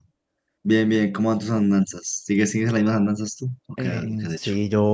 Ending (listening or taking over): taking over